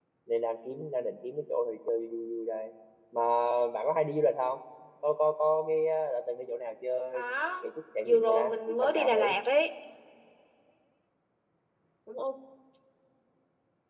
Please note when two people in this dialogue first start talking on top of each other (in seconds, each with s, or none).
8.1 s